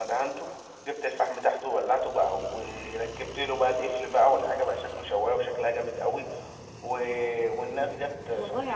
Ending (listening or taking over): listening